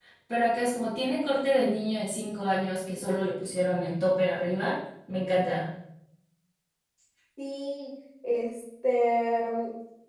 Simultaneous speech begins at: none

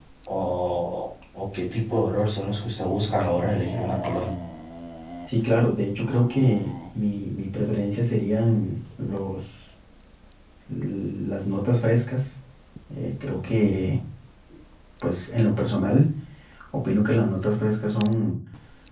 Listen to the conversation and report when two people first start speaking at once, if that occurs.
none

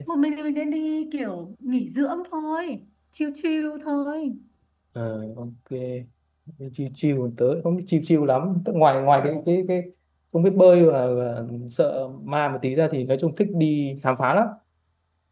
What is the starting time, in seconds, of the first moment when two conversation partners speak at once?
none

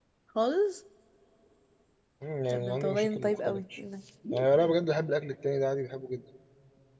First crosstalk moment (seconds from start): 2.5 s

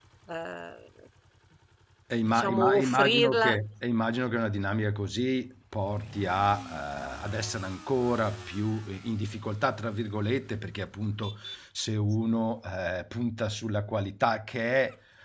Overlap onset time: 2.3 s

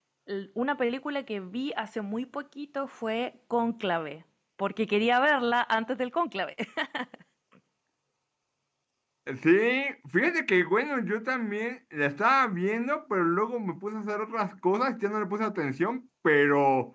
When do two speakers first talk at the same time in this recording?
none

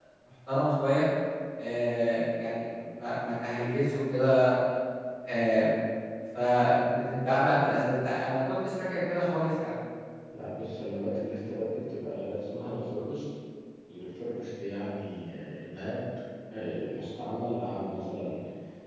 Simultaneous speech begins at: none

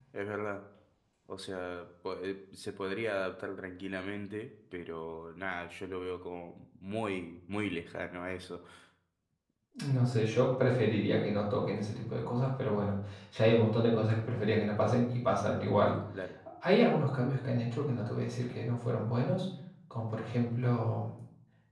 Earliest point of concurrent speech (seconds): none

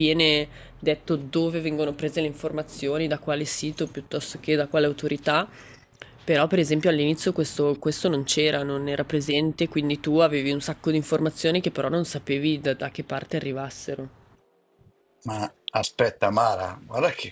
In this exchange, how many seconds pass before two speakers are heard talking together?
none

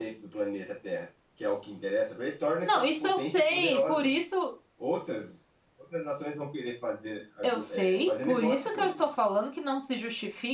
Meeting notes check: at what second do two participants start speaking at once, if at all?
2.6 s

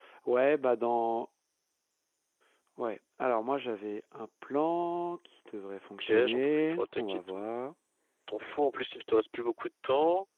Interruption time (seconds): 6.0 s

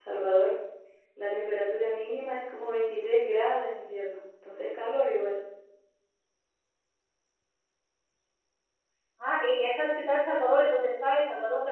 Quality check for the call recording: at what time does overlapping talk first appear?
none

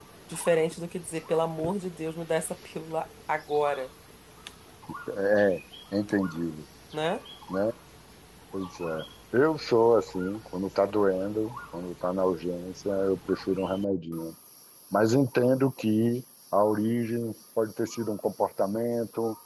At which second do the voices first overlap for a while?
none

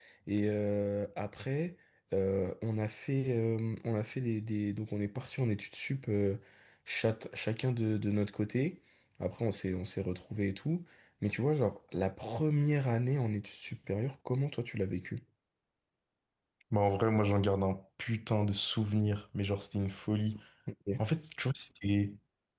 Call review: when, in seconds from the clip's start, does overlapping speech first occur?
none

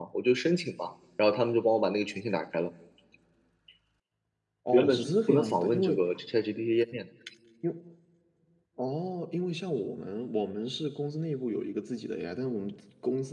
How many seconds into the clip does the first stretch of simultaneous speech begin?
4.7 s

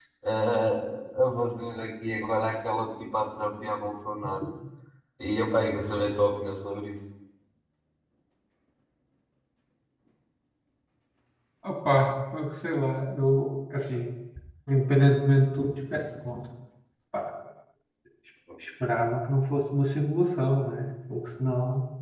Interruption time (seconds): none

